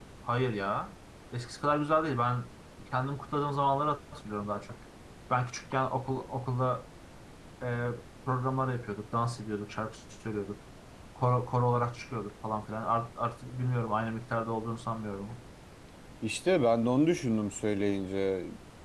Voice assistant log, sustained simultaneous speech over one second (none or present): none